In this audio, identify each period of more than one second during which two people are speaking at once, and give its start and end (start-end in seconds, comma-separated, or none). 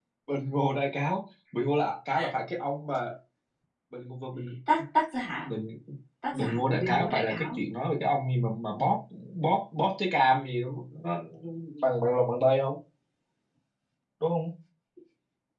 6.3-7.6